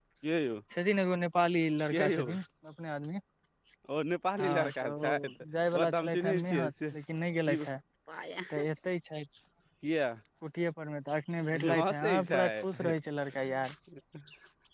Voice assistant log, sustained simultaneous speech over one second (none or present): present